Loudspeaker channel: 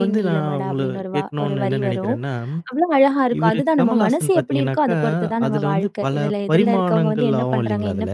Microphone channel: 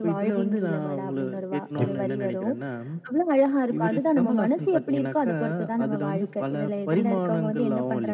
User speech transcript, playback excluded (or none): கண்டிப்பா.